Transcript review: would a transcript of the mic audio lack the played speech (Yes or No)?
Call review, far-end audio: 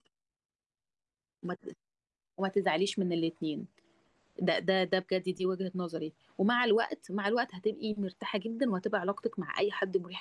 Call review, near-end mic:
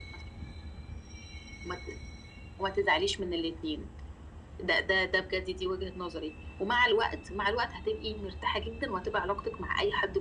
No